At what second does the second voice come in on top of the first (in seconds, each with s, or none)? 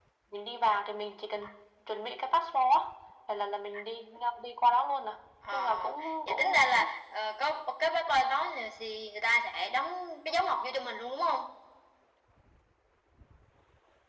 5.5 s